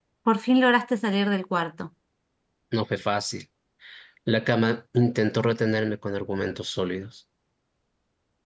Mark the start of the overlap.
none

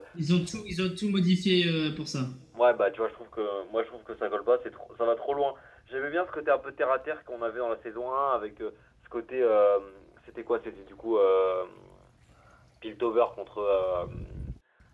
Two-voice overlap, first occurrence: none

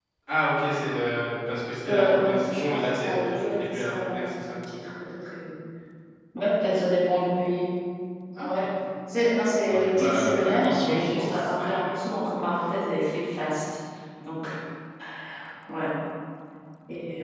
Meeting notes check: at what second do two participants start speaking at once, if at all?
1.9 s

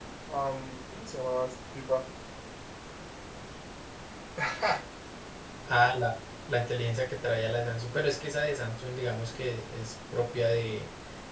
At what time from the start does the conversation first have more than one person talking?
none

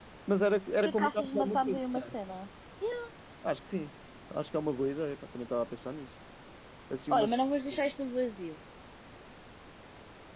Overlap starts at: 0.8 s

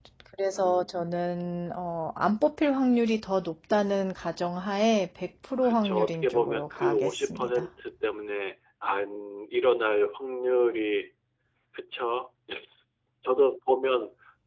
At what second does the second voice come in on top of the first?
5.6 s

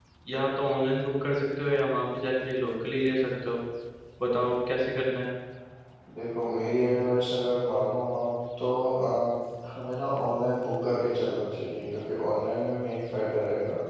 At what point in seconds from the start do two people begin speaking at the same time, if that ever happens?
none

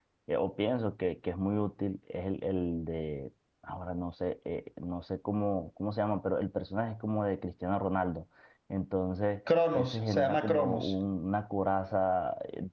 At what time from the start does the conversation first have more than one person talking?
9.7 s

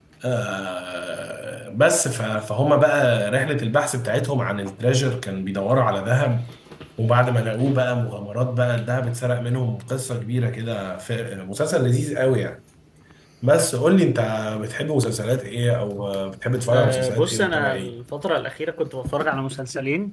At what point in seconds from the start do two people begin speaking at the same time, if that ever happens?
16.7 s

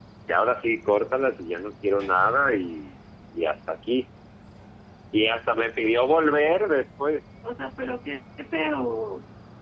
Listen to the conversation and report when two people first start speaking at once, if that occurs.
none

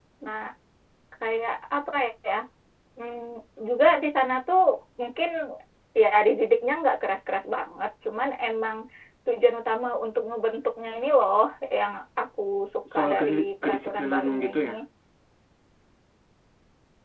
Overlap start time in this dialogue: 12.9 s

